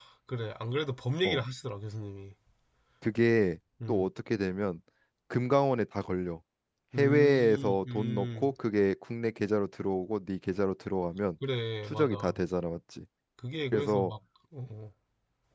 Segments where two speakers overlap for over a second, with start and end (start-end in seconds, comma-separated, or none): 7.0-8.5